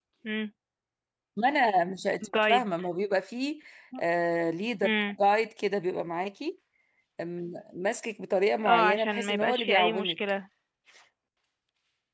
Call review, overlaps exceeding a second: present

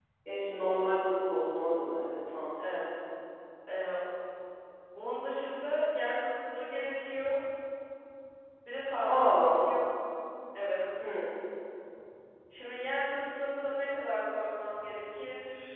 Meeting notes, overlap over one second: none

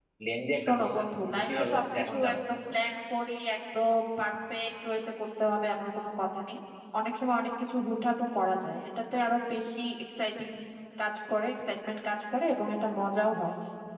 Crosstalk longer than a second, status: present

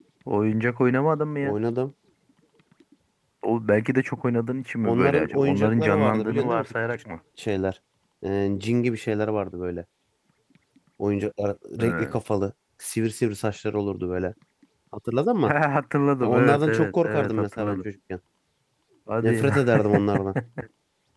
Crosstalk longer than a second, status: present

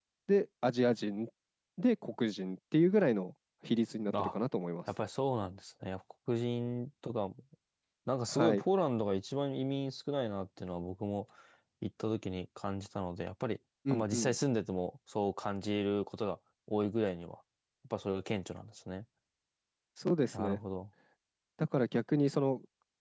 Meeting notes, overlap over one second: none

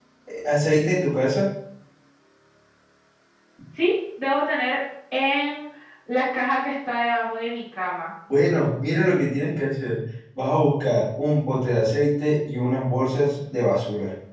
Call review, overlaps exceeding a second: none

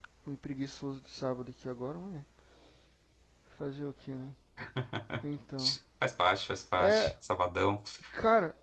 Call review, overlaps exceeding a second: none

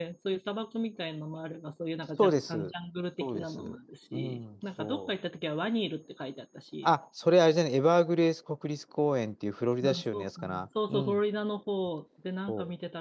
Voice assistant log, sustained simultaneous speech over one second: present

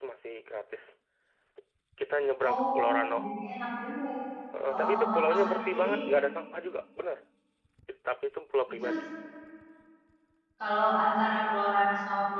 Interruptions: present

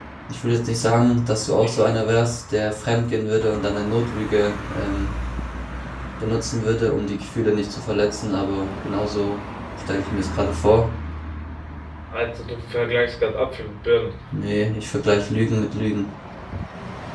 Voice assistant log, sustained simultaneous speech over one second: none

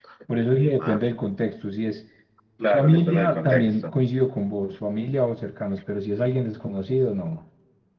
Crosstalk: present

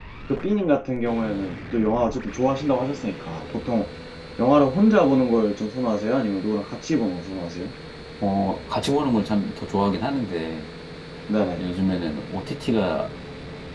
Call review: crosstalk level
none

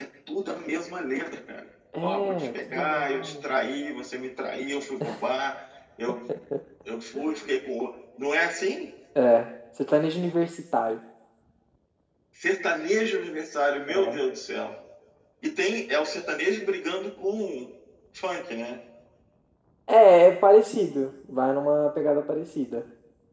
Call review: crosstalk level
present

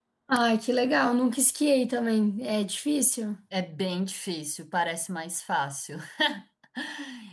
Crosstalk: none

